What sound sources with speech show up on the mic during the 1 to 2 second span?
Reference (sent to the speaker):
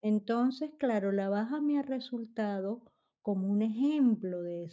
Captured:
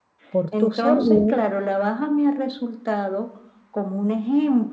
both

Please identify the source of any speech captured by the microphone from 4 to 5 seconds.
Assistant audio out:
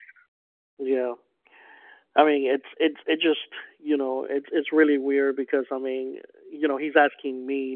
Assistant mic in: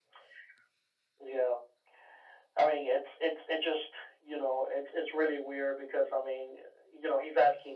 echo only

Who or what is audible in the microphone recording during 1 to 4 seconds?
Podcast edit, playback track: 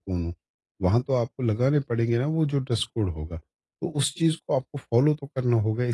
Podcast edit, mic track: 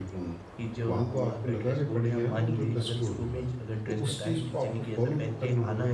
both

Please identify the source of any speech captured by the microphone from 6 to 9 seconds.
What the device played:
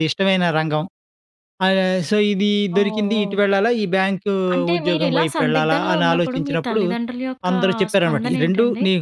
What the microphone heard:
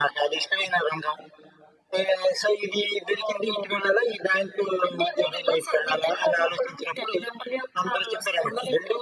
echo only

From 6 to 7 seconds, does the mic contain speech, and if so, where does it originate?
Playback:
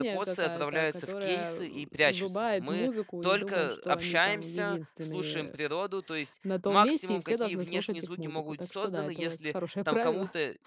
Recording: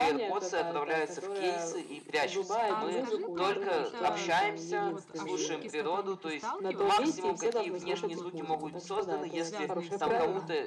both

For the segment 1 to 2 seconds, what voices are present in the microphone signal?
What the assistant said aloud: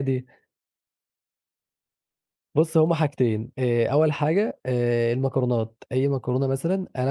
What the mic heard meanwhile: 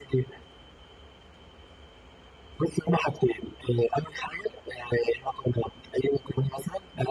neither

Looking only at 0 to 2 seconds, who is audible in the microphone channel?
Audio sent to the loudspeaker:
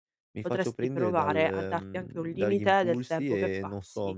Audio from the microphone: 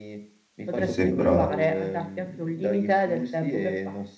both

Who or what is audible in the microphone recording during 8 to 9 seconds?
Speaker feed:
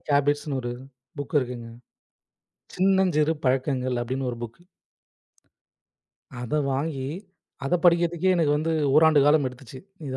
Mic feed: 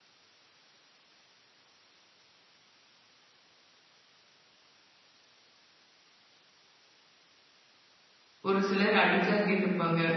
user only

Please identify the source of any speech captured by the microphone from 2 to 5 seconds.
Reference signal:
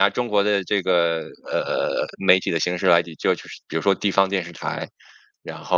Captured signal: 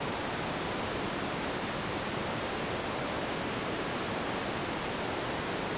neither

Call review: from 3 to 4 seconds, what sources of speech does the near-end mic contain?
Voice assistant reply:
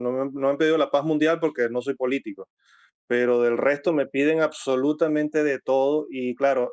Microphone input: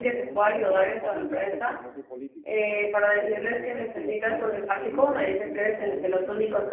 both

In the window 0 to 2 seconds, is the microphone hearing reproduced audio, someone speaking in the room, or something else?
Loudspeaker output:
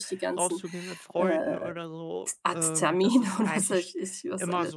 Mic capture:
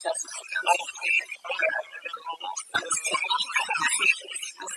echo only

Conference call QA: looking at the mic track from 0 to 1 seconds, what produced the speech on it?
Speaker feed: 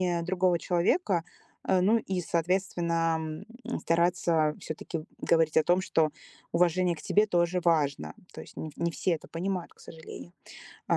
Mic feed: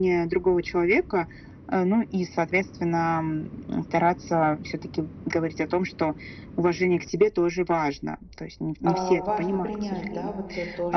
echo only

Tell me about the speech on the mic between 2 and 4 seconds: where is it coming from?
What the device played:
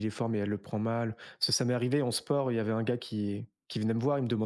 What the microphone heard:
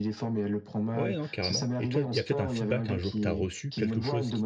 both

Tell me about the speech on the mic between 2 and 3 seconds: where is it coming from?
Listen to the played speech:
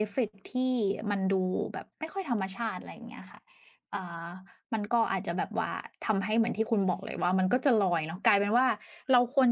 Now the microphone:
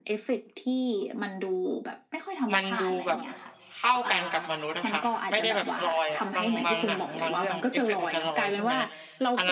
both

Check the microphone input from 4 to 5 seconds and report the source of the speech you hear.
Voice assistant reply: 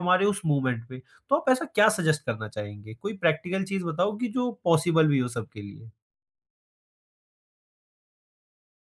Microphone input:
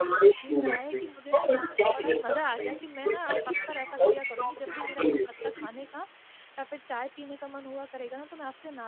both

